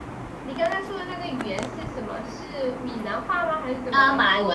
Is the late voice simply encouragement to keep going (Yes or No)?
No